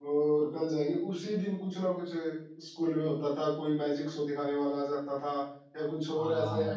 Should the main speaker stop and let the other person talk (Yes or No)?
No